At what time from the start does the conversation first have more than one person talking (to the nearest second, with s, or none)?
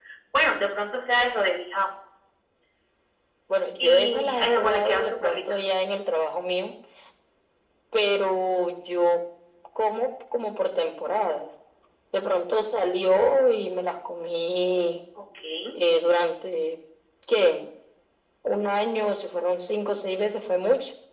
4 s